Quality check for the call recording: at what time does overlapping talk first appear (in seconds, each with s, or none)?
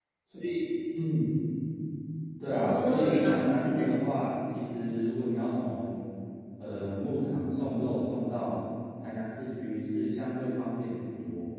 2.5 s